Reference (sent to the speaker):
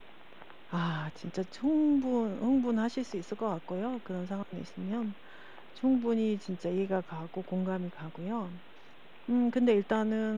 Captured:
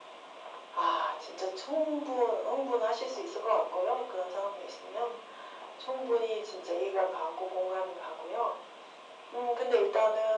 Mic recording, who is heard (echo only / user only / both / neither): echo only